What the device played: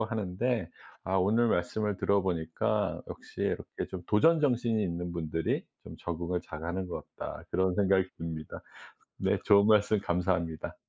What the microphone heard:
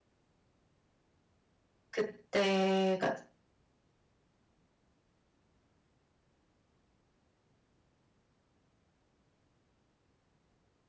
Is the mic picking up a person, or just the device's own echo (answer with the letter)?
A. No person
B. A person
B